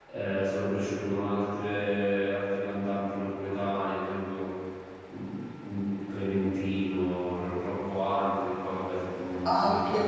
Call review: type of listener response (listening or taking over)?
taking over